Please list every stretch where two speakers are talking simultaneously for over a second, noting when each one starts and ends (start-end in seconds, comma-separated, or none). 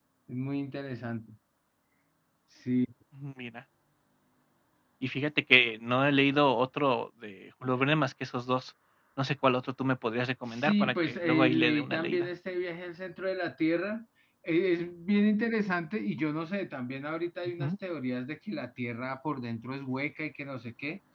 10.4-12.3